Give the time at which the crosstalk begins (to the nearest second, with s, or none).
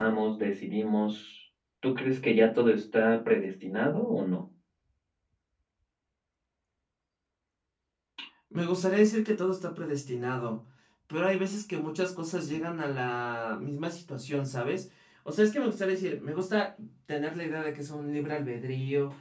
none